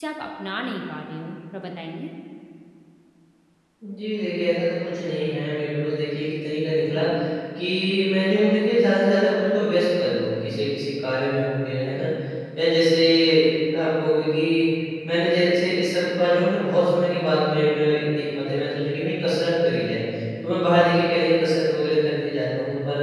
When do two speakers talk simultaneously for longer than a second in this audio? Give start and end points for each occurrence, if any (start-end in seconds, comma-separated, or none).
none